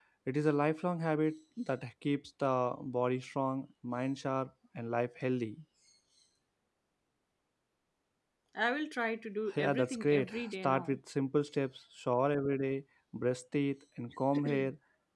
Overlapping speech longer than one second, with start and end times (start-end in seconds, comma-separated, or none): 9.5-11.0